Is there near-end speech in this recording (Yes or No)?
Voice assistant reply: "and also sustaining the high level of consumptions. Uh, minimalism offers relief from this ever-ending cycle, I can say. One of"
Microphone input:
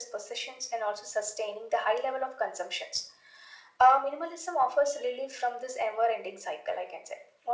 No